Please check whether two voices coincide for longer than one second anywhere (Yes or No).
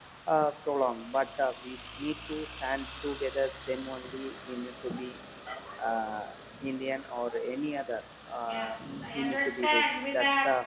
Yes